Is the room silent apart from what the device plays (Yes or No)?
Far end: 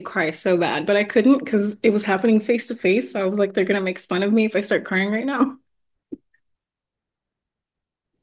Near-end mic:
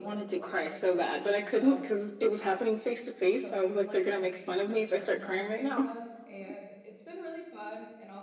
No